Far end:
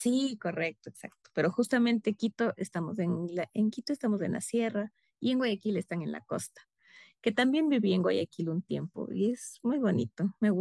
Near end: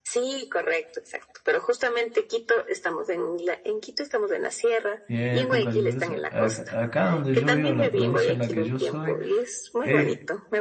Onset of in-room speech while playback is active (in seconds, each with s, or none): 5.1 s